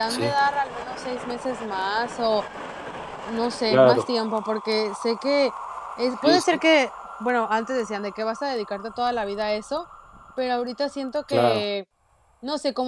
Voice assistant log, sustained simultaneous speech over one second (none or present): none